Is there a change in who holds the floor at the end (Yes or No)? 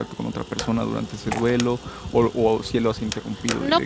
Yes